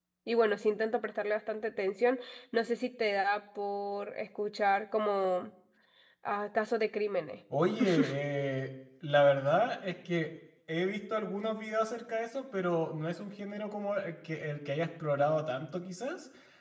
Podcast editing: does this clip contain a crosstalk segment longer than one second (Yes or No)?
No